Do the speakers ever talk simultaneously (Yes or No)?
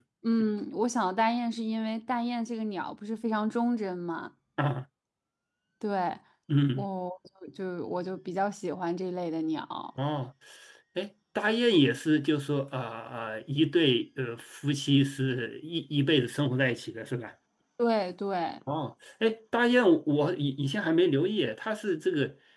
No